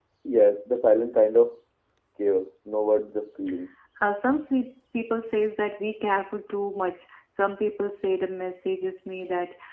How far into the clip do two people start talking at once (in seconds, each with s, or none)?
none